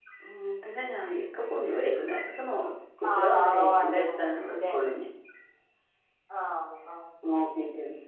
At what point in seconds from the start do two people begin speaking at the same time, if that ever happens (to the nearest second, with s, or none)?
3 s